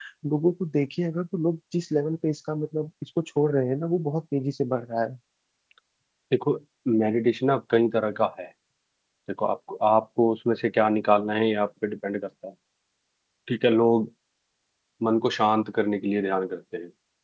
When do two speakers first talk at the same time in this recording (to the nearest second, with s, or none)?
none